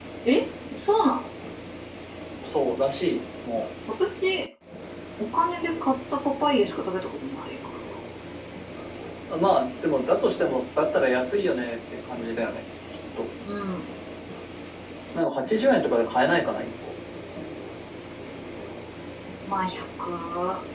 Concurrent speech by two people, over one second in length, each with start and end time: none

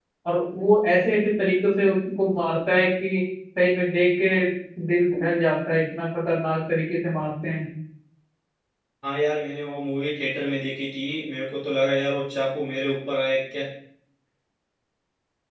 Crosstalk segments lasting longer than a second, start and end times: none

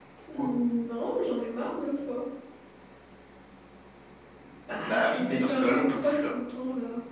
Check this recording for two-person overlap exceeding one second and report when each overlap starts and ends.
4.9-6.3

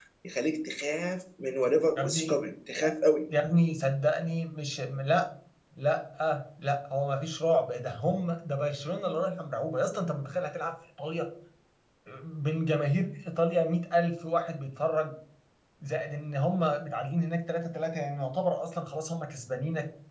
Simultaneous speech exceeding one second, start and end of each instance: none

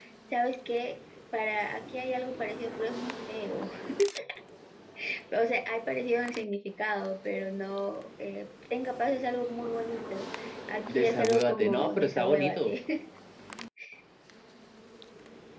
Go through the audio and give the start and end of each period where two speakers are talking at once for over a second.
10.9-12.7

